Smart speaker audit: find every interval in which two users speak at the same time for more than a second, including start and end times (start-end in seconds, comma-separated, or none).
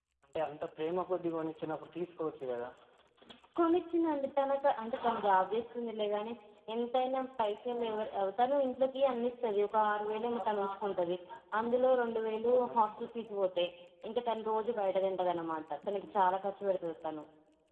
none